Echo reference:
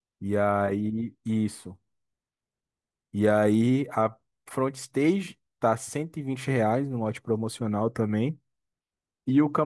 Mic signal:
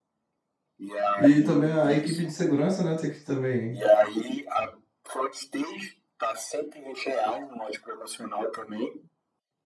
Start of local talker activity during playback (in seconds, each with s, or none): 1.2 s